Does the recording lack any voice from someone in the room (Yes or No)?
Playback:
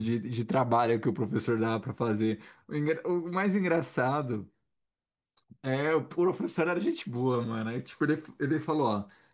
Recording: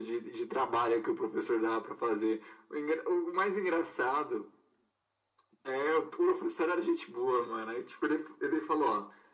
Yes